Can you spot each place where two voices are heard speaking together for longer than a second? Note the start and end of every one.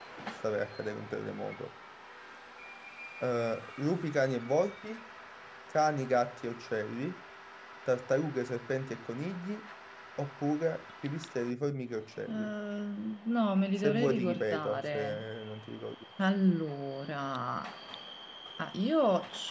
13.8-15.2

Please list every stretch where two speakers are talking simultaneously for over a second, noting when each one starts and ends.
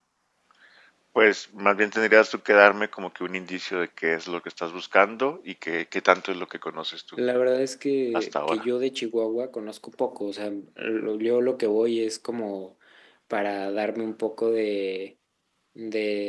none

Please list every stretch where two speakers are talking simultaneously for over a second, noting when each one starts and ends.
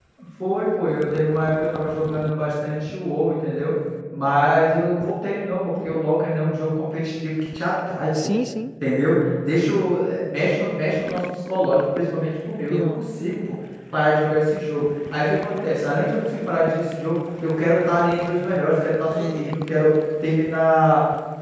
none

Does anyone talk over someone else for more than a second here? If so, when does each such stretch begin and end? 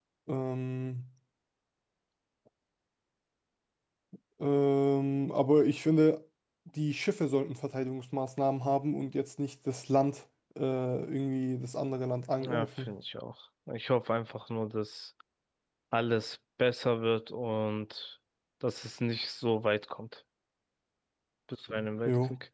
none

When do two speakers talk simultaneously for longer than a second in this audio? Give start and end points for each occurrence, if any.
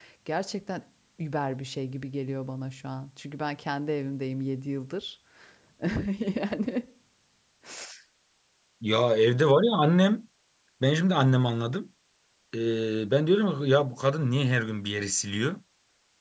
none

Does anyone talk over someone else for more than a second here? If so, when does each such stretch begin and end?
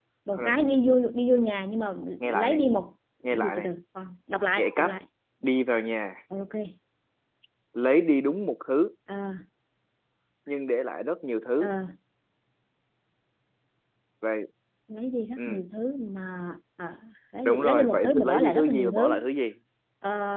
17.4-19.2

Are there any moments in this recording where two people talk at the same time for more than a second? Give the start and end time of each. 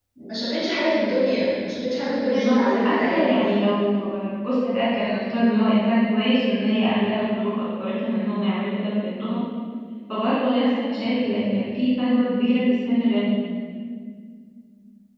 2.3-3.5

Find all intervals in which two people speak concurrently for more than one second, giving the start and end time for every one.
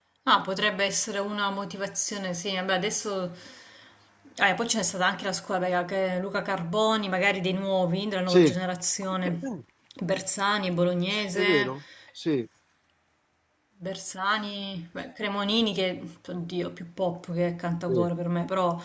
none

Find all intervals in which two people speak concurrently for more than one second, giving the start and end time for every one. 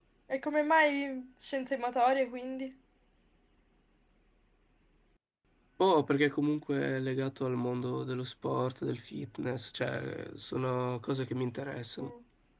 none

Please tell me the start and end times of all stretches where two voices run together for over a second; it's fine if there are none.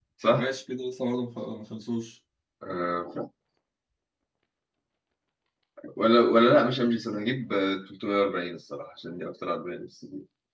none

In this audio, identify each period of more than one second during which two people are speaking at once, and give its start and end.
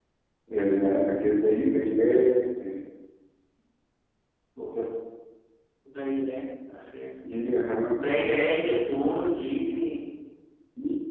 none

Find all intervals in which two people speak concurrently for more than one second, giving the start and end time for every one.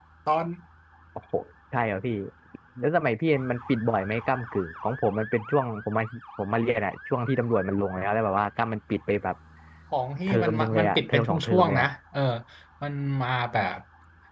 10.3-11.9

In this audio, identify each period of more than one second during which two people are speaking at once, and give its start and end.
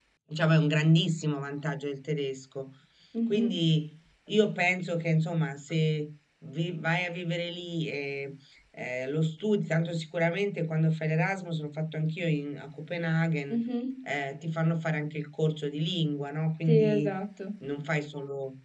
none

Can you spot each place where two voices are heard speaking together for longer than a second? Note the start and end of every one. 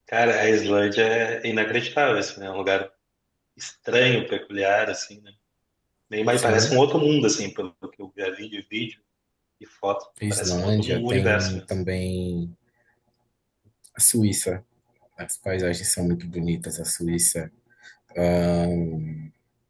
10.3-11.6

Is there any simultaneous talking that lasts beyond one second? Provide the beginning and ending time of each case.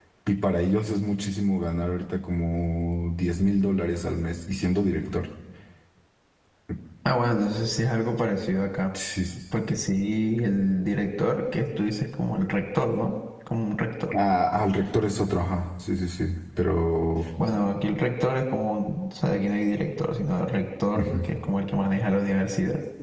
none

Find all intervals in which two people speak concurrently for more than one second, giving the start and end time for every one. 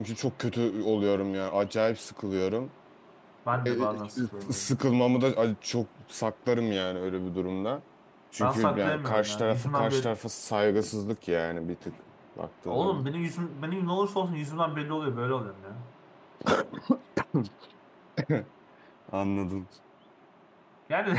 8.4-10.2

